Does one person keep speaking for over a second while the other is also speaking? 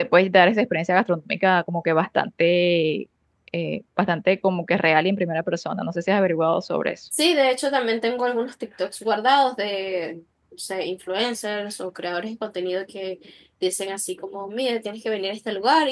No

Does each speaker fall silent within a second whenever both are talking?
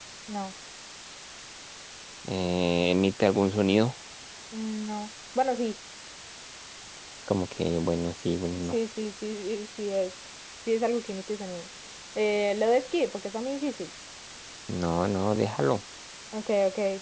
Yes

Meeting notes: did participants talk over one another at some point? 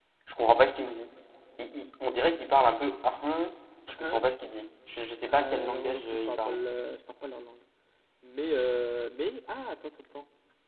Yes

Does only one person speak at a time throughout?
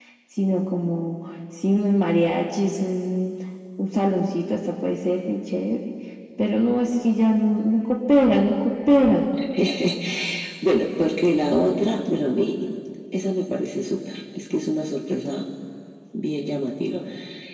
Yes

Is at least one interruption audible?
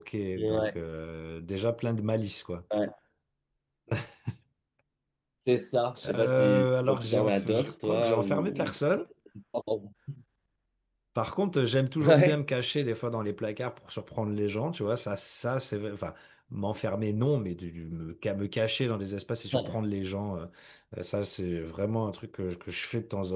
Yes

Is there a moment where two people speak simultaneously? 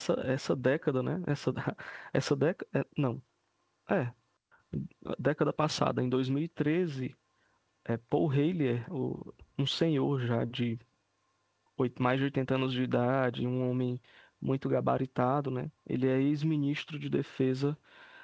No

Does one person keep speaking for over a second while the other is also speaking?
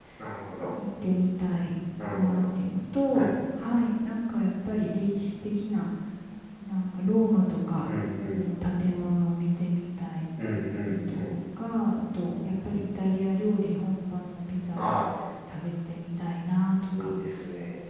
No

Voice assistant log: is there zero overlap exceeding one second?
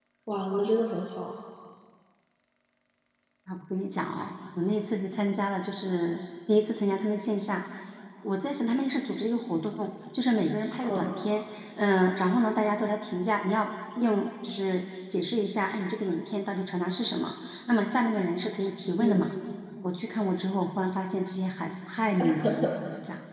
Yes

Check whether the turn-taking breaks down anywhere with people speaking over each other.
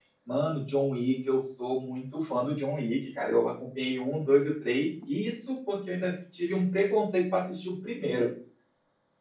No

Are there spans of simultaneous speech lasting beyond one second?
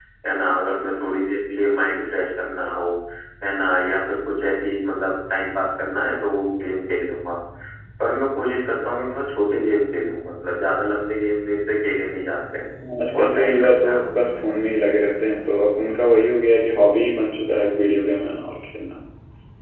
Yes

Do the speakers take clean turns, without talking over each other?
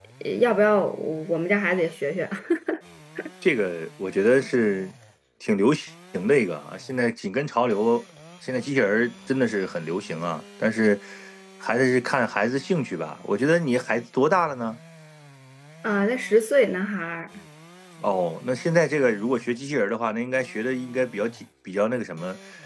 Yes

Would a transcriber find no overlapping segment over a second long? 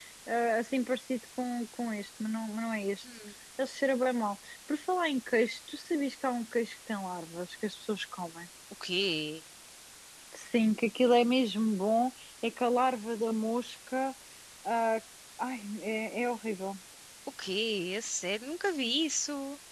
Yes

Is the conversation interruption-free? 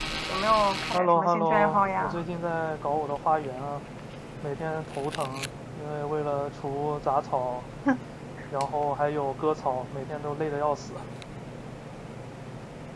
No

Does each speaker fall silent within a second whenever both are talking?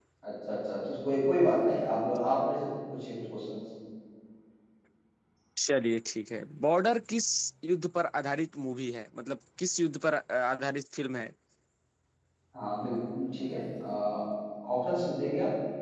Yes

